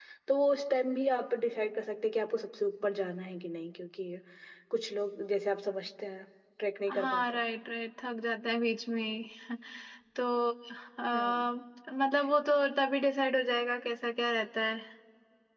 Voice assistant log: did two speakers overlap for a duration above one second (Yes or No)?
No